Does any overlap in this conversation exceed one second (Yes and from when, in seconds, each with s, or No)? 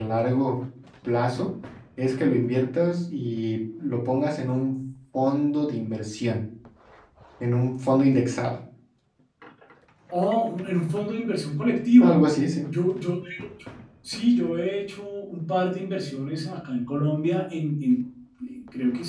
No